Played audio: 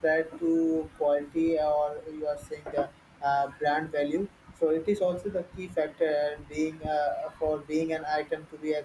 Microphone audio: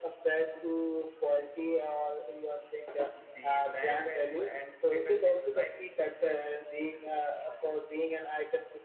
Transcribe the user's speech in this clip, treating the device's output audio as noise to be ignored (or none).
the brand value and status symbol, like,